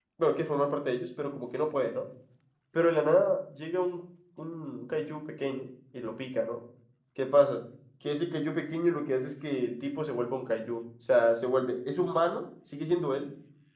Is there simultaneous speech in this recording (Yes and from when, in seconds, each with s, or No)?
No